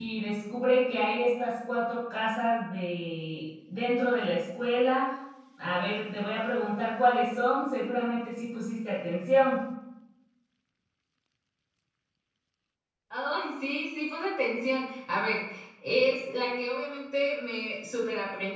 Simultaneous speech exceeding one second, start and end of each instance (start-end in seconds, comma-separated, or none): none